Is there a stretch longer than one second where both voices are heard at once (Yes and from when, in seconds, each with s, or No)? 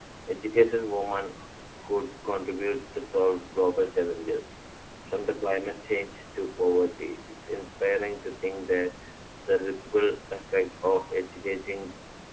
No